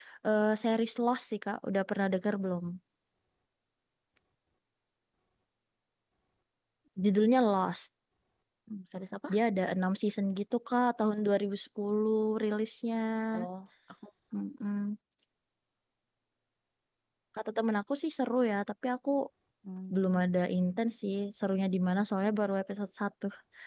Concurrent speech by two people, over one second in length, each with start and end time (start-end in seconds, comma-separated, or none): none